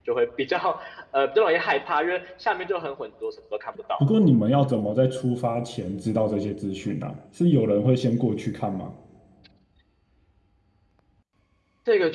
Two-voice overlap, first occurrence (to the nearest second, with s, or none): none